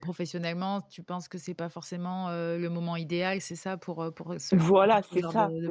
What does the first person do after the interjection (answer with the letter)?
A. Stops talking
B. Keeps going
A